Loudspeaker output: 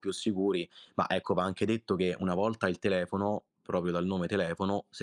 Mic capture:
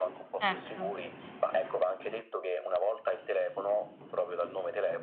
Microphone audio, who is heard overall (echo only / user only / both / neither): both